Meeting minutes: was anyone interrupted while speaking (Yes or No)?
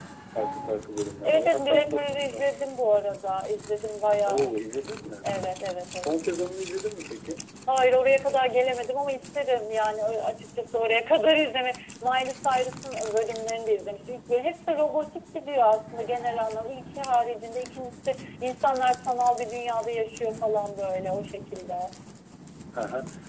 Yes